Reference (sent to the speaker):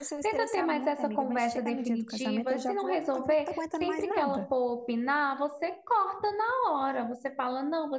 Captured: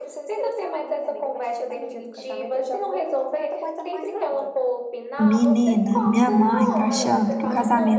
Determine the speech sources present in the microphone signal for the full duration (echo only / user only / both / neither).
both